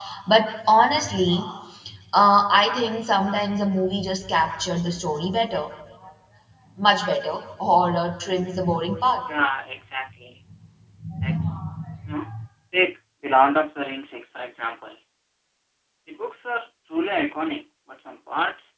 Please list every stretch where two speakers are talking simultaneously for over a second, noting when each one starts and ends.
none

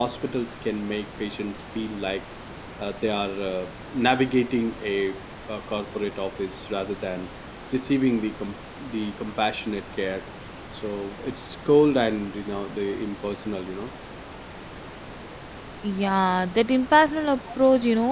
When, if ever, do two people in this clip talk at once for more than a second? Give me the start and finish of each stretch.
none

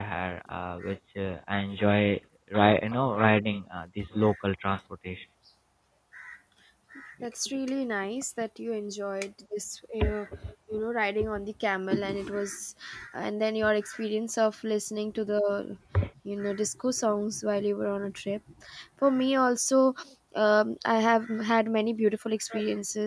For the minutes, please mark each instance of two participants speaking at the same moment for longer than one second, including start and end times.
none

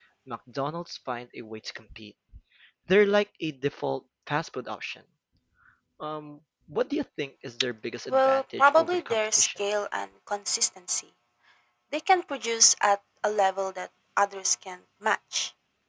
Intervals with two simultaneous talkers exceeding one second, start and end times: 8.1-9.5

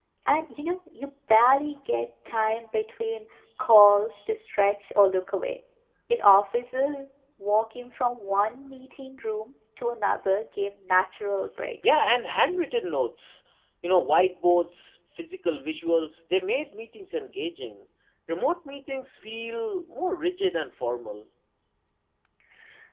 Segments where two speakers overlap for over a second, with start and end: none

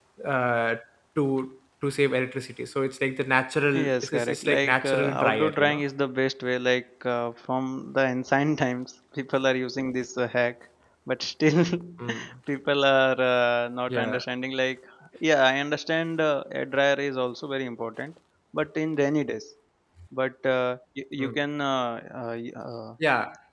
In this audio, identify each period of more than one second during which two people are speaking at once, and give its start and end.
3.7-5.8

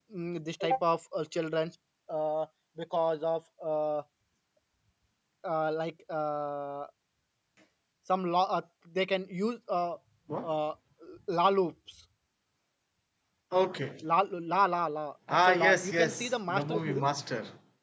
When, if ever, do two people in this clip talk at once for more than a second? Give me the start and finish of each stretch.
15.3-17.1

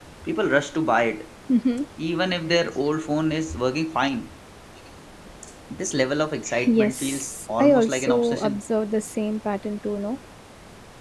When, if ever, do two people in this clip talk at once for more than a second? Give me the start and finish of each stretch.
6.7-8.6

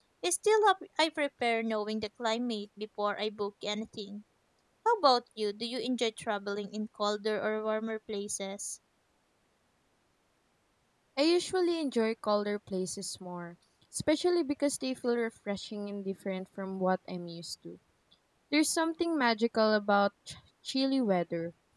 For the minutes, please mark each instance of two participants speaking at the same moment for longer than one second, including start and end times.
none

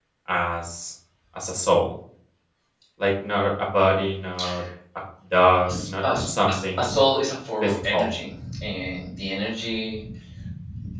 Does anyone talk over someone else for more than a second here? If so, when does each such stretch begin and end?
5.7-7.0

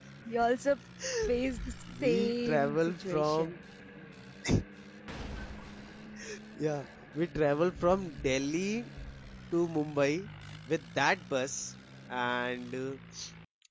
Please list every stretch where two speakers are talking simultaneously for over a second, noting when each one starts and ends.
2.0-3.6

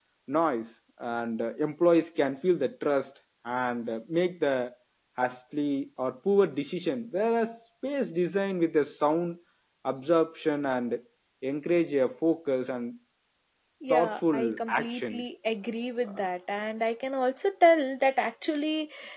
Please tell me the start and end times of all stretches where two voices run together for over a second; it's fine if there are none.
13.9-15.2

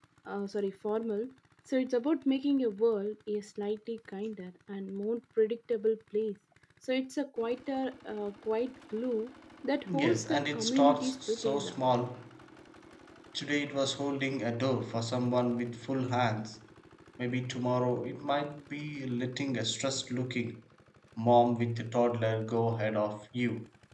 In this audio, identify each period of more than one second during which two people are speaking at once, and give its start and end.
10.0-11.8

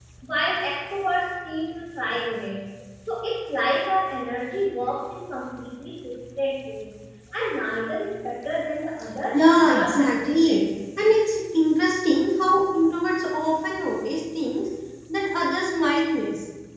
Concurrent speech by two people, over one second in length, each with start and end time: 9.3-10.6

